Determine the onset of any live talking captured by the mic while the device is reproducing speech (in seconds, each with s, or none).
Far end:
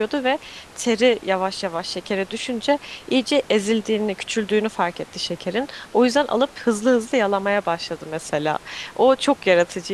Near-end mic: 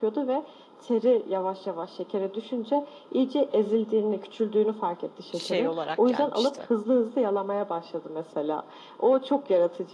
5.3 s